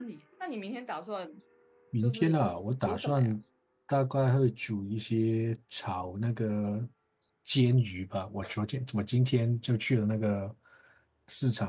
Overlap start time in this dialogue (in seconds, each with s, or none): 2.0 s